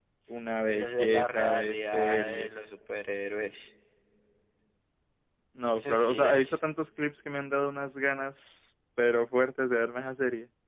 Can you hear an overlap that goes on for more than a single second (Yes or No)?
Yes